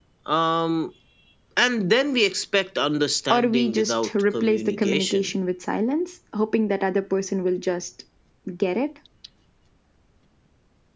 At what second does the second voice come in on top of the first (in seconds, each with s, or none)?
3.3 s